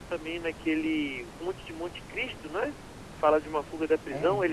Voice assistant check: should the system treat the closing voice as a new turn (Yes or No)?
No